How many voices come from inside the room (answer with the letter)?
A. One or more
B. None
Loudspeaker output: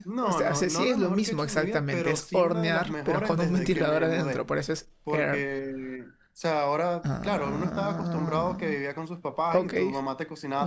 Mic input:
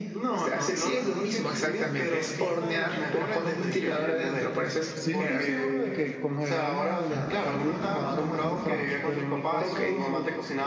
A